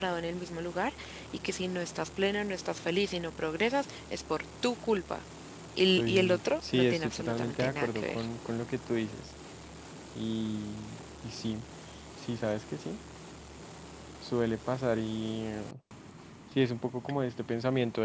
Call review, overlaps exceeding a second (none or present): present